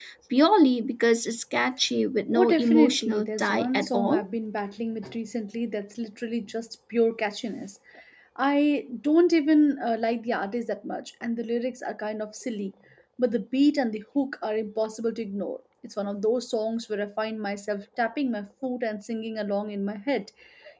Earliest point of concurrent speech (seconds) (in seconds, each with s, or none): 2.3 s